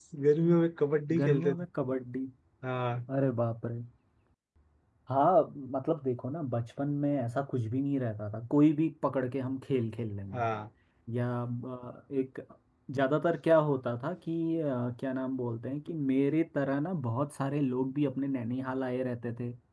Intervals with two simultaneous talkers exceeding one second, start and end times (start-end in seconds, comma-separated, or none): none